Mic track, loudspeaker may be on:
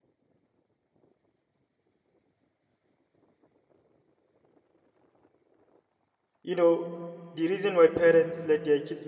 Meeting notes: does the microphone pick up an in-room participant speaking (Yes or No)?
Yes